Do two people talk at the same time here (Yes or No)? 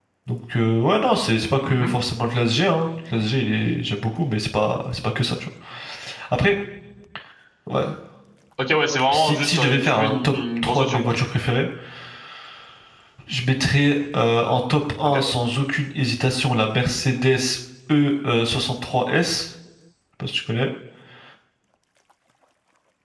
Yes